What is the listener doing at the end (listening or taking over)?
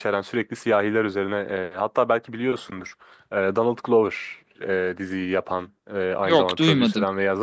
listening